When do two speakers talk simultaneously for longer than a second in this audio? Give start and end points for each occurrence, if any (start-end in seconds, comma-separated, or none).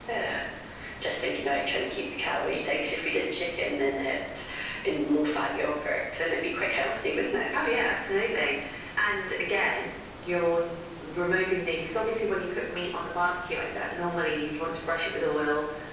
none